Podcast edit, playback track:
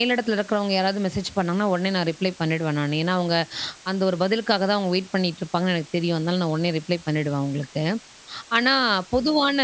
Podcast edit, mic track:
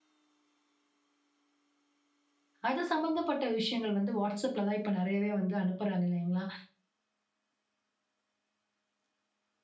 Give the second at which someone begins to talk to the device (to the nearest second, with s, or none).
3 s